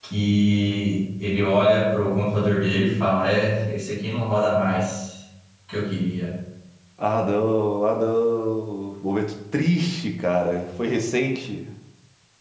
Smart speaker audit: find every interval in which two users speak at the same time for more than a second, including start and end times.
none

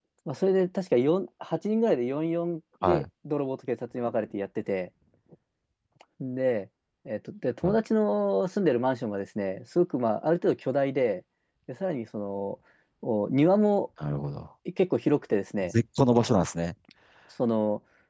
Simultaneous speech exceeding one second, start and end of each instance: none

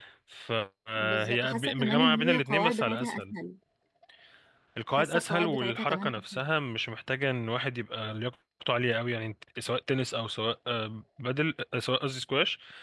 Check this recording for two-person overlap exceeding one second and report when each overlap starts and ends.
1.0-3.3, 5.0-6.4

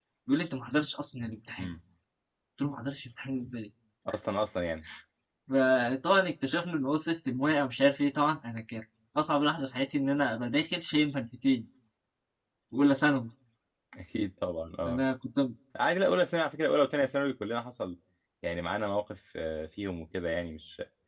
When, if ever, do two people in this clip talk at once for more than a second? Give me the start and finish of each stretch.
none

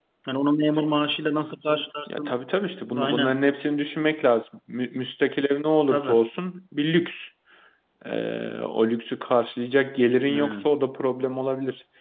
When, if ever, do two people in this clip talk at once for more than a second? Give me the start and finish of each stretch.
none

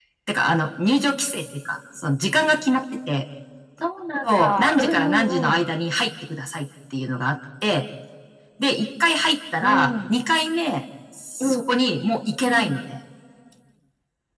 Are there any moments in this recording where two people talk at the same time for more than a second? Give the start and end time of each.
4.3-5.6

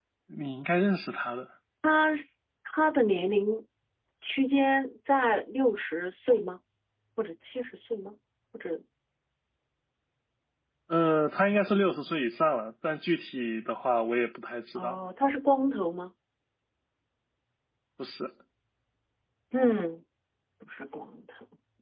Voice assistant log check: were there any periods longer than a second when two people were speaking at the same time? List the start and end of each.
none

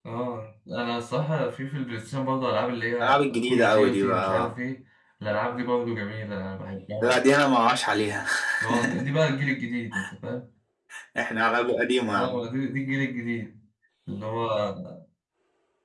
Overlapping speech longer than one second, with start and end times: 3.0-4.5

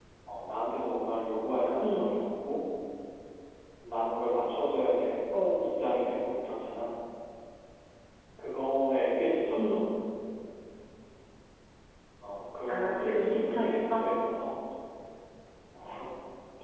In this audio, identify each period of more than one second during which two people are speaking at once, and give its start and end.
12.7-14.1

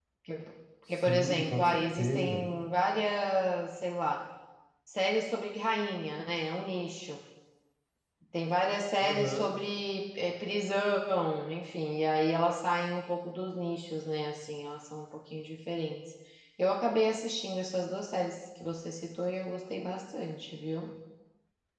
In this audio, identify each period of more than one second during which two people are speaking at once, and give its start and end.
0.9-2.5

